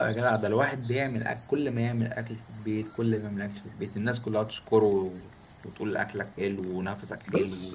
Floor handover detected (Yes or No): Yes